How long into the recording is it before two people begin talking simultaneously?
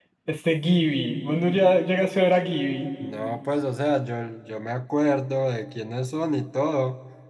none

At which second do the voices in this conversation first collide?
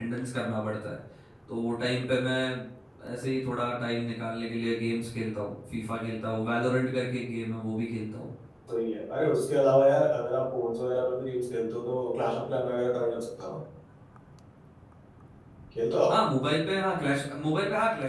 none

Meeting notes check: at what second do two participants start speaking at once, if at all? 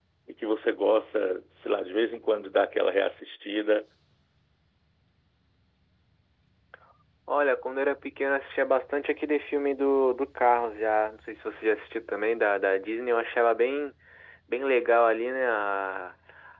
none

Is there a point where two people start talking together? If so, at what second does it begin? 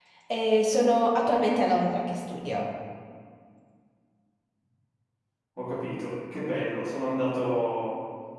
none

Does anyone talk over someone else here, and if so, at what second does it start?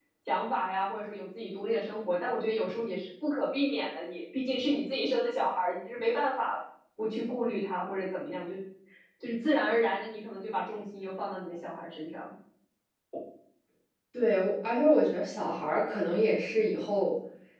none

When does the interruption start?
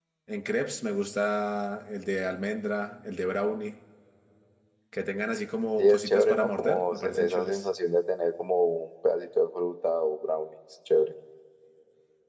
5.8 s

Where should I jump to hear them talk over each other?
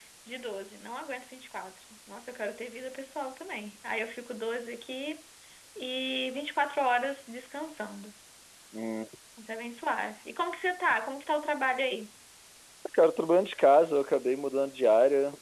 none

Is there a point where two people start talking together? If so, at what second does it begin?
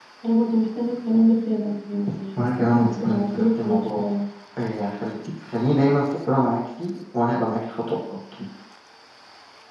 2.6 s

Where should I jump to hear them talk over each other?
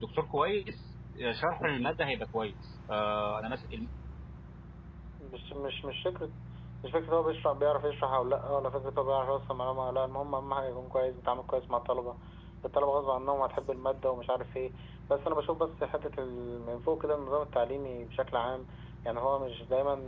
none

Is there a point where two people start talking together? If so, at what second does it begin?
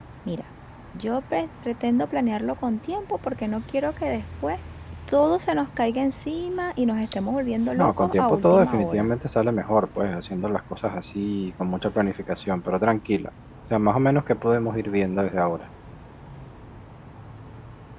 7.8 s

